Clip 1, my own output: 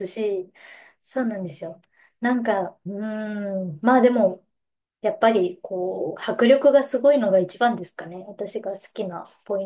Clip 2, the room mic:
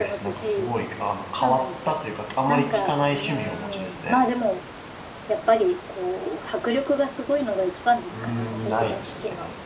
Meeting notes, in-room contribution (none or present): present